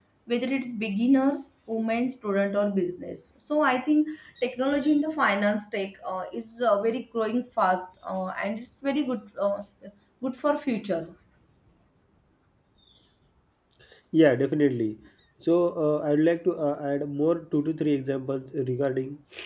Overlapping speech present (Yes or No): No